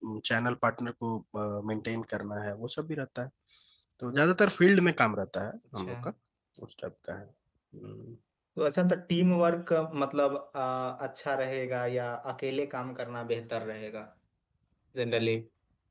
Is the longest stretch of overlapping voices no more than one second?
Yes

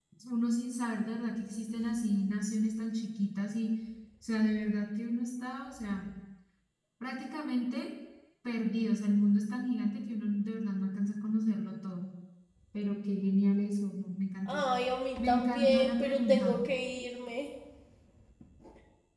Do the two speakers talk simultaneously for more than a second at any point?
Yes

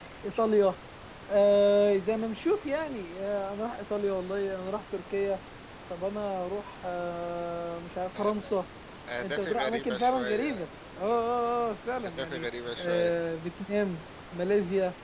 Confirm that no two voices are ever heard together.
No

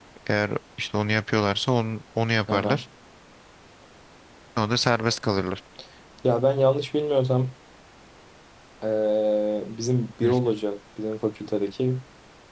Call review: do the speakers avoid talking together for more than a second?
Yes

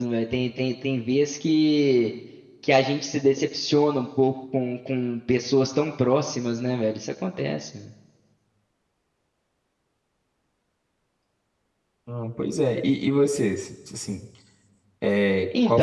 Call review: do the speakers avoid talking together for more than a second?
Yes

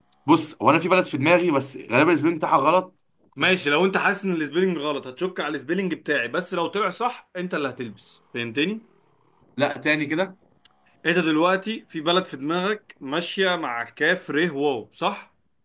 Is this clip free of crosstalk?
Yes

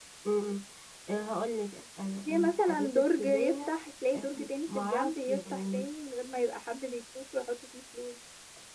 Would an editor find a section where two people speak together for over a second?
Yes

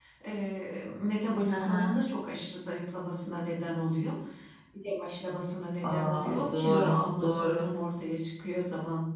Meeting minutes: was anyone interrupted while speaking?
Yes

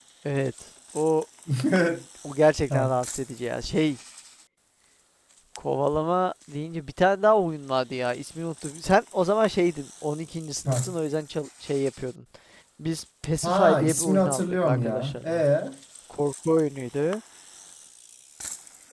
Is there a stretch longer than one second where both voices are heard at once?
Yes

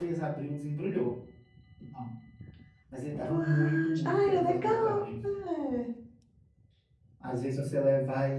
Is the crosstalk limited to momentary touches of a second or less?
No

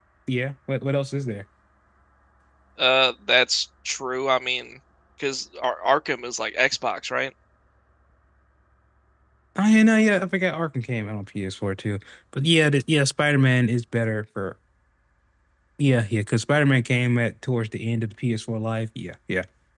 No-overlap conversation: Yes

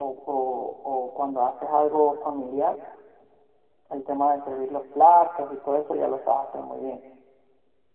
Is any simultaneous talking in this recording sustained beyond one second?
No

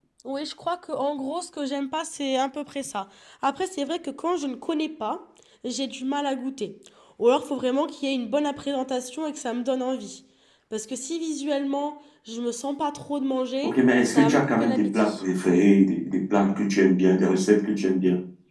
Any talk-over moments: Yes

